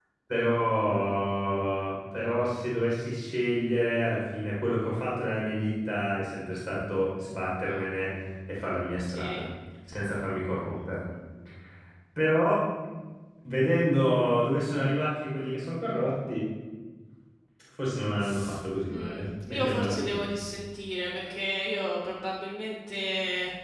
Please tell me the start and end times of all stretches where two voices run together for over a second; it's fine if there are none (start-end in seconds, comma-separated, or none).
18.9-20.2